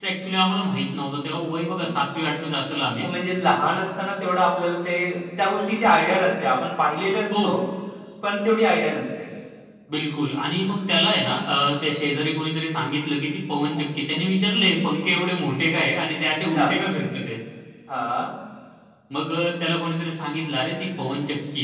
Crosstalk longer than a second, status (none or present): none